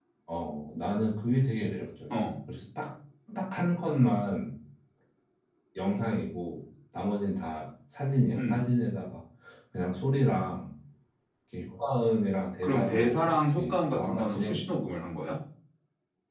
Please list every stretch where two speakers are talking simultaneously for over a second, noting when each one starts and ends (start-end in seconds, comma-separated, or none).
12.6-14.6